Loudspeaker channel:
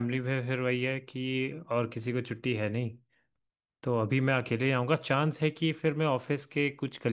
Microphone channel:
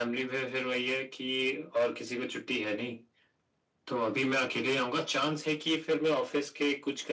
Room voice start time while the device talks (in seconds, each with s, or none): none